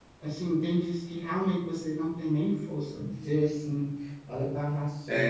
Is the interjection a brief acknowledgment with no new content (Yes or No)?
No